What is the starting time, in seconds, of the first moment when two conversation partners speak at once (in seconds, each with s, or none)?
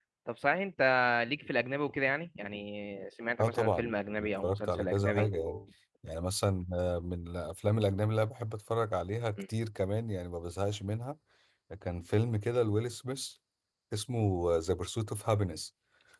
3.4 s